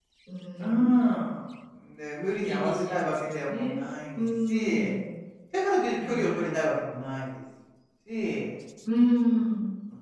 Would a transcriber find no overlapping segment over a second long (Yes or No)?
No